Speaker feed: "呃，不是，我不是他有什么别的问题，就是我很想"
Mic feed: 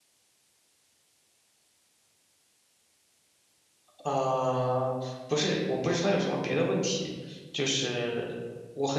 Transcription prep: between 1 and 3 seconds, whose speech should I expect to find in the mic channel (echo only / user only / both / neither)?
neither